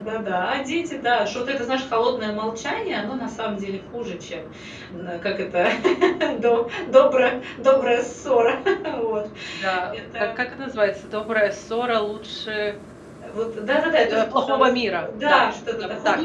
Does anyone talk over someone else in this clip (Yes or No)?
Yes